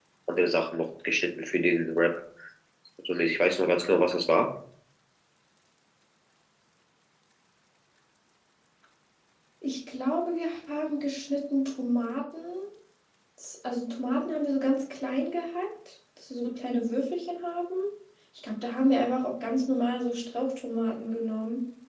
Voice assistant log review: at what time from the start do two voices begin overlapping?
none

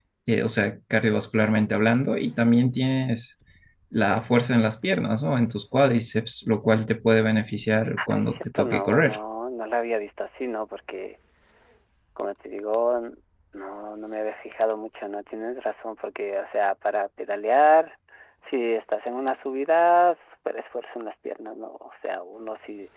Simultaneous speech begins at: 8.0 s

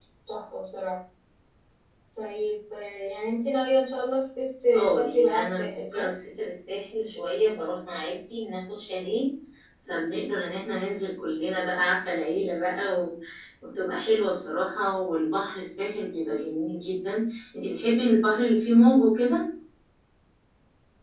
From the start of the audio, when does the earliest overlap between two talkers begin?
4.7 s

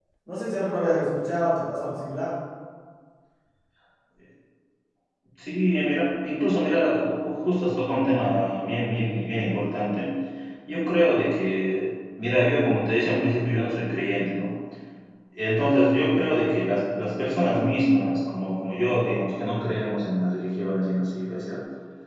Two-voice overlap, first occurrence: none

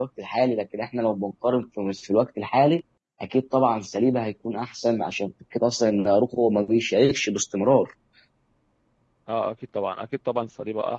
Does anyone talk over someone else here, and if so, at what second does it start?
none

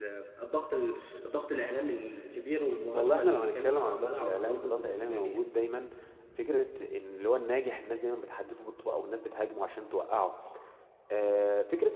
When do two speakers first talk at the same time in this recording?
2.9 s

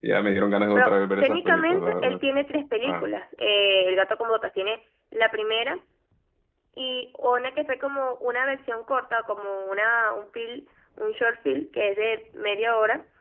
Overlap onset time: 0.8 s

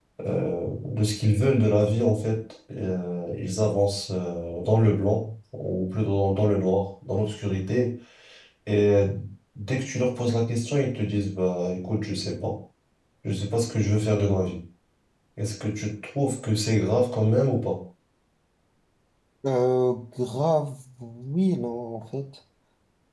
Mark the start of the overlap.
none

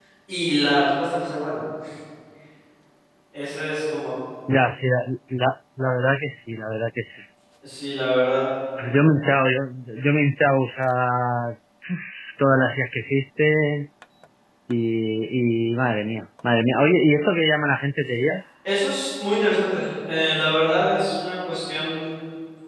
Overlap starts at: none

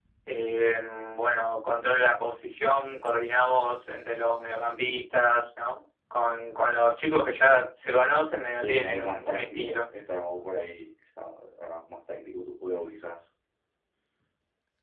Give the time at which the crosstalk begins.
8.6 s

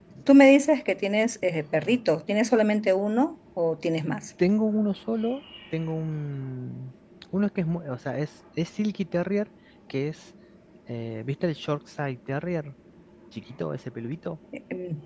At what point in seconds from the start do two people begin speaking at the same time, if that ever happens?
none

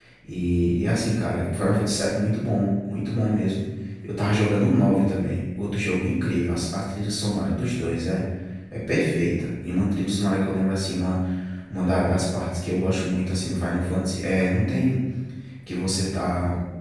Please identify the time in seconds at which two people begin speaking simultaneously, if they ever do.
none

